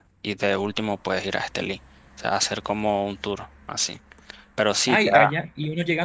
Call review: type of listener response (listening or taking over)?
taking over